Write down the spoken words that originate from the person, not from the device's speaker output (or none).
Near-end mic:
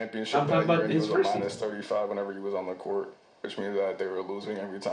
I'm talking about his first season.